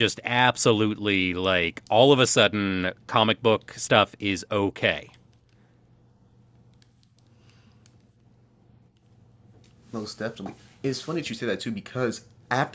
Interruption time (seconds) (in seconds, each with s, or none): none